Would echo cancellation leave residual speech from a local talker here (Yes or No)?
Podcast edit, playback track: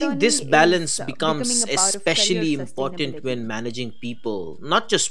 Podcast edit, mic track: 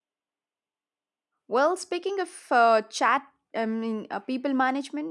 Yes